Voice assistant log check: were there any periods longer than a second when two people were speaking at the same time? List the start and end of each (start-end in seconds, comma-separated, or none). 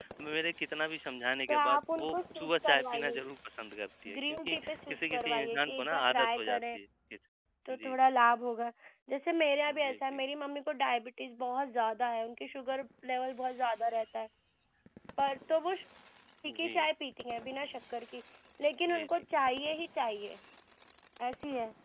1.5-3.1, 4.1-6.8